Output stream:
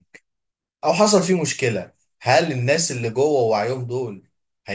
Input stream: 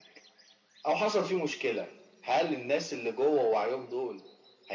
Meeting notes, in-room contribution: none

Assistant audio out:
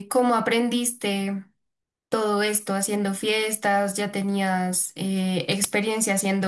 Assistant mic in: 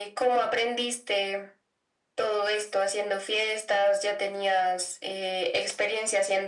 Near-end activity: none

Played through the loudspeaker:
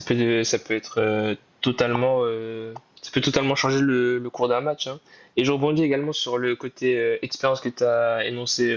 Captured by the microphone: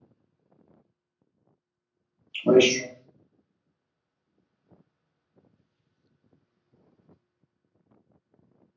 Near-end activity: present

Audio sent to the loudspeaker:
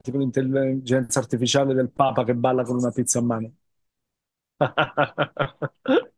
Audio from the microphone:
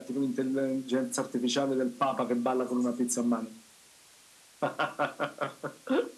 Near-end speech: none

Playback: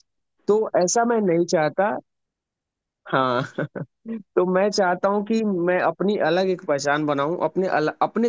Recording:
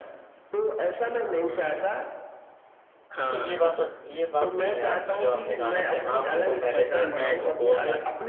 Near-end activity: present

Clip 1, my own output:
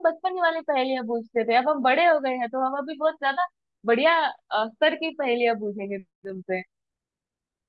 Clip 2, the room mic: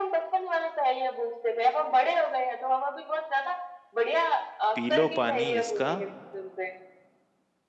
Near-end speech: present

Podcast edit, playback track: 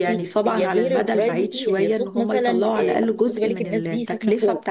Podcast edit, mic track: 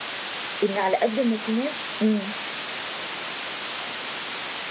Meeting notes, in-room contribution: present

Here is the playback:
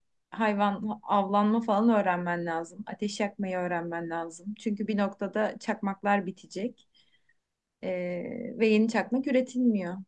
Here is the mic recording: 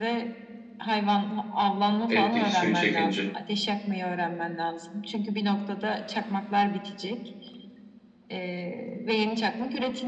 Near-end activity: present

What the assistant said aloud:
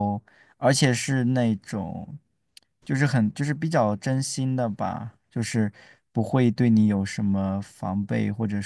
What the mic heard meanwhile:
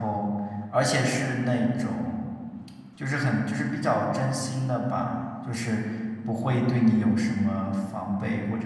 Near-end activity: none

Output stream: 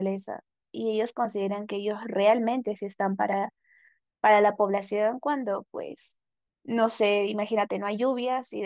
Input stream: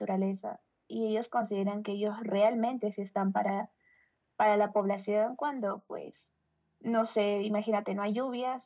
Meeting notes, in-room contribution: none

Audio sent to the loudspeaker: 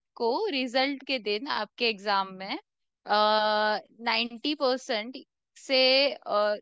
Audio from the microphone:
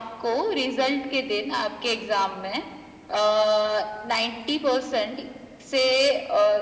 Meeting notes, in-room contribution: none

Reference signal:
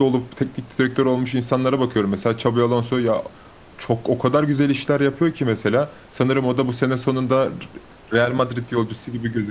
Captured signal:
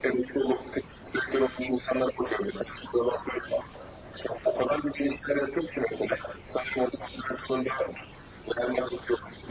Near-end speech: none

